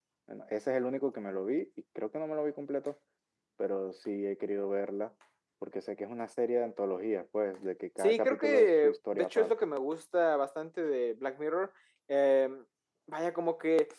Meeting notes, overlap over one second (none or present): present